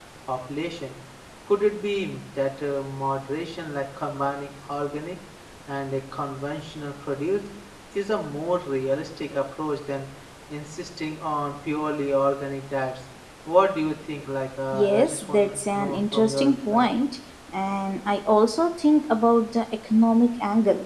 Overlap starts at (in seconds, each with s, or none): 14.7 s